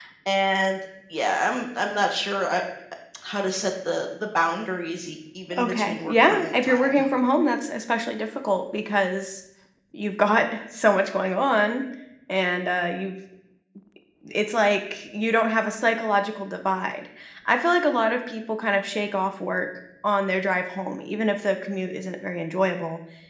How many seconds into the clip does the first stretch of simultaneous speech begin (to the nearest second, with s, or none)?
6 s